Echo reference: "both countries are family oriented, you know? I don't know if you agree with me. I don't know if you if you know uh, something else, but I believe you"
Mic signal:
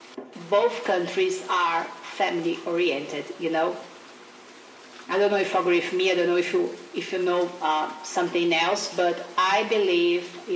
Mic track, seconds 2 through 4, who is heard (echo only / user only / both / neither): echo only